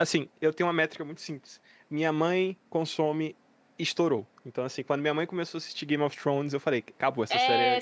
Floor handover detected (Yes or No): Yes